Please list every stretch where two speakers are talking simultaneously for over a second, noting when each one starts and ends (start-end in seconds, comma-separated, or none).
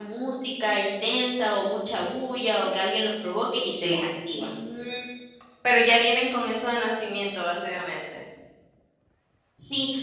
none